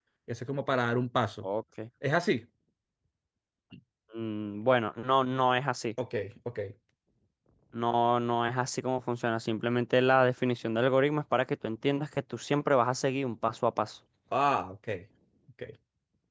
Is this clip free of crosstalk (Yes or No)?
Yes